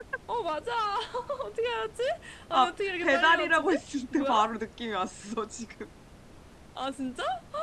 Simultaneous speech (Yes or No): Yes